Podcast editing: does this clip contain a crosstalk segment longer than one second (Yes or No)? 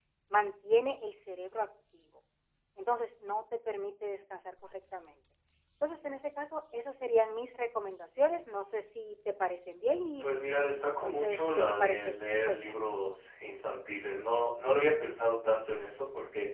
Yes